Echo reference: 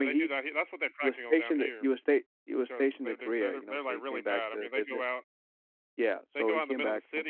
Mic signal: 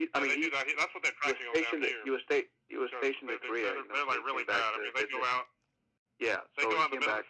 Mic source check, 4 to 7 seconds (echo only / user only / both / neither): echo only